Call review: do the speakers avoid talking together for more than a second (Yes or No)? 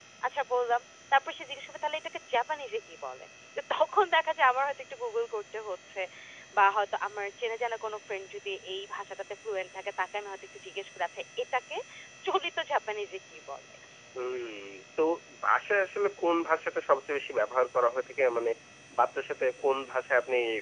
Yes